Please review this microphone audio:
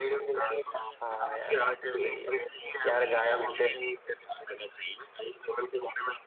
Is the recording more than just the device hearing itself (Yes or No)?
Yes